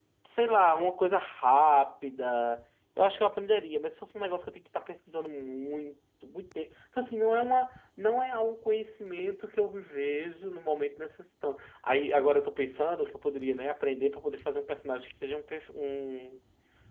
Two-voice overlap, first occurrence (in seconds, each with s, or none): none